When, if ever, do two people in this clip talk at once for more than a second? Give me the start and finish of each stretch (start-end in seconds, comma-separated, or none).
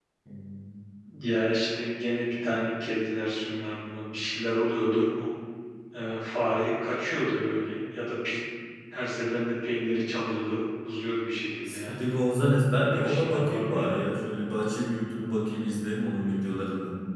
12.7-14.0